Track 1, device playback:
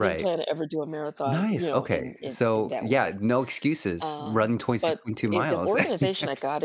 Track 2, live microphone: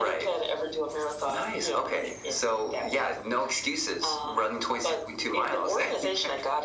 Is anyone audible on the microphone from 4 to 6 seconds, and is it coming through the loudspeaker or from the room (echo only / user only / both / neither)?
echo only